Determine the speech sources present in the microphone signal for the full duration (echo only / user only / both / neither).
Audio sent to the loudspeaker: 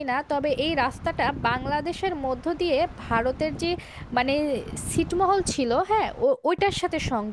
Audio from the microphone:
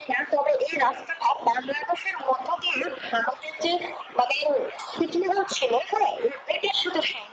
echo only